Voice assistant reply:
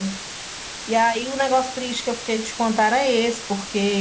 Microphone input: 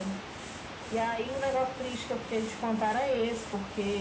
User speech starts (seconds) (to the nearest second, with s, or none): none